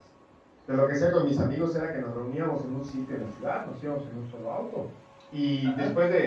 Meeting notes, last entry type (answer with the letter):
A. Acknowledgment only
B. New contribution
A